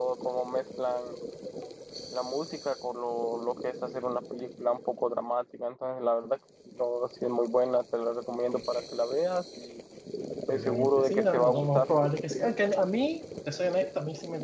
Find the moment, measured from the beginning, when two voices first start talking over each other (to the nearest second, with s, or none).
10 s